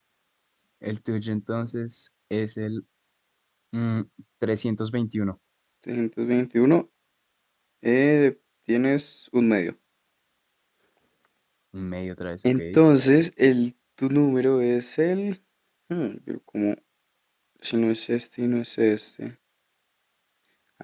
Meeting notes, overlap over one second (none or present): none